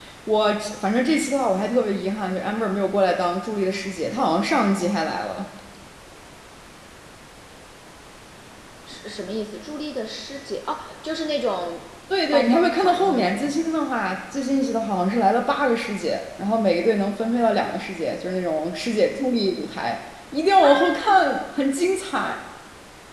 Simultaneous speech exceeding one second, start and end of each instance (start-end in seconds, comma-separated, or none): 12.3-13.6